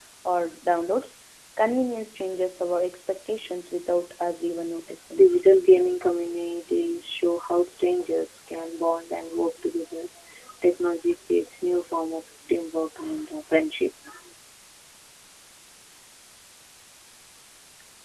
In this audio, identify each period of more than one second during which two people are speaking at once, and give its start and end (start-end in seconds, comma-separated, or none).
none